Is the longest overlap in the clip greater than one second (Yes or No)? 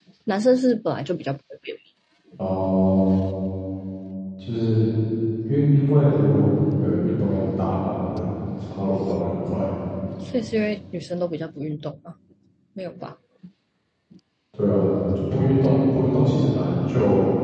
No